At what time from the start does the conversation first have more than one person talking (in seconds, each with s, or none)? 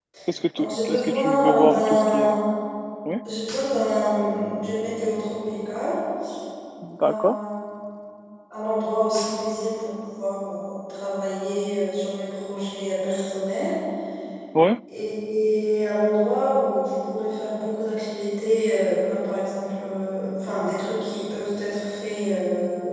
0.6 s